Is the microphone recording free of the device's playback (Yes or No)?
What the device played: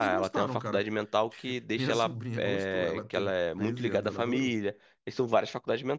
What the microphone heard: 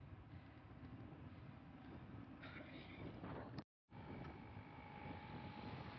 Yes